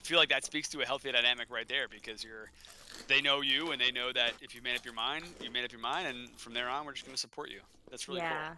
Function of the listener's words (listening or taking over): taking over